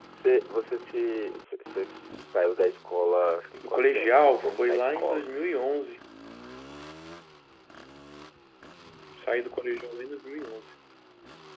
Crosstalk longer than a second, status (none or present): present